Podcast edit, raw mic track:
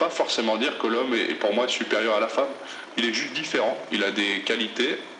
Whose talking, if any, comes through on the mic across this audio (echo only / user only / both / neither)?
echo only